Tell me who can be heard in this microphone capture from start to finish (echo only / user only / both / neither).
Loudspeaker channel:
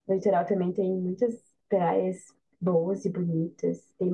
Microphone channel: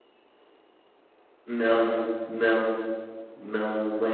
user only